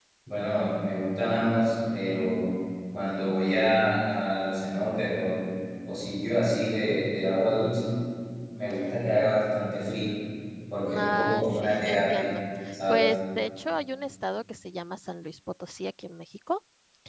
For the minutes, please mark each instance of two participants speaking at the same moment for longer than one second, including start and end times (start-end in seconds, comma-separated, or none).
10.9-12.3